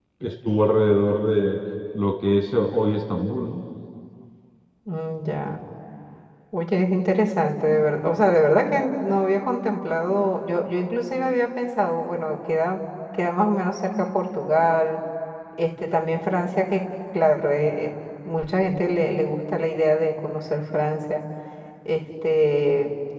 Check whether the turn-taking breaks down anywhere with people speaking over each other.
No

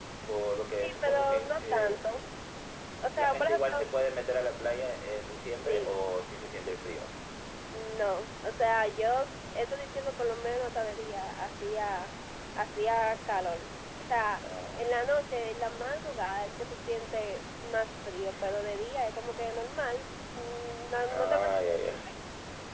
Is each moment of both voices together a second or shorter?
No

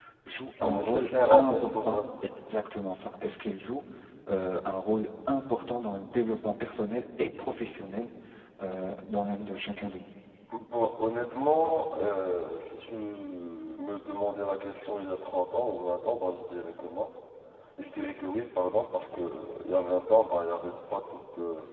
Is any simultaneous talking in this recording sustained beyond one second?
Yes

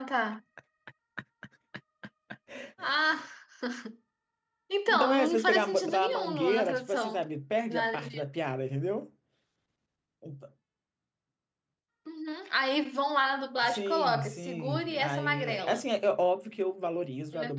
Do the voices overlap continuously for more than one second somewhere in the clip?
Yes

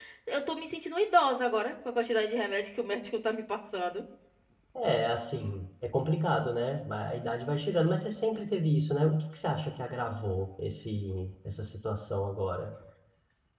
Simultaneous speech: No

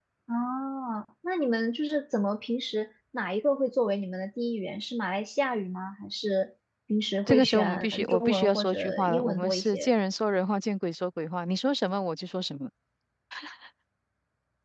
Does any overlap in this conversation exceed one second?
Yes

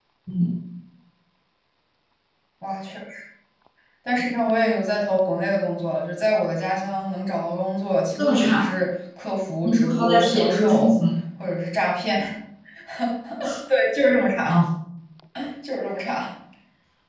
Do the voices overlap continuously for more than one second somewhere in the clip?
Yes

